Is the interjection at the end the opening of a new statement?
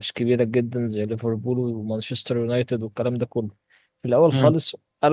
No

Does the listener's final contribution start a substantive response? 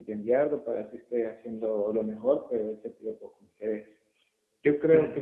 No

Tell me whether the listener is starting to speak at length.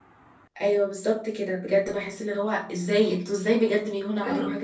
Yes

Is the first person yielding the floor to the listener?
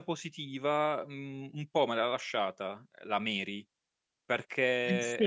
No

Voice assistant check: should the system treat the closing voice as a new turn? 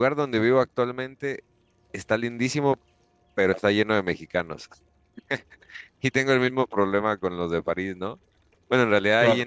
No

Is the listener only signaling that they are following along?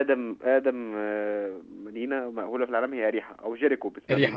No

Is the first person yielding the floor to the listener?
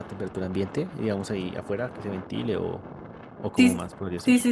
Yes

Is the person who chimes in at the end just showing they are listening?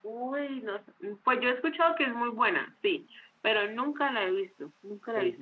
No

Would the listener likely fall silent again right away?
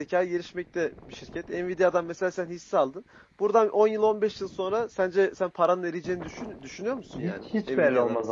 No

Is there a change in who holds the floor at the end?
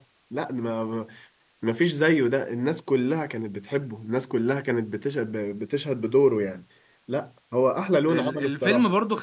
Yes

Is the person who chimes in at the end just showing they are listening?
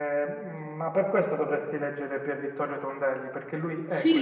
No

